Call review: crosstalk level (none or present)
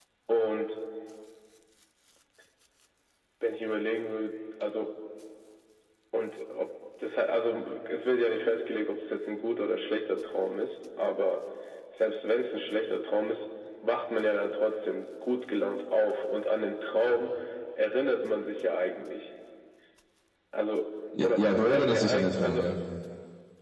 present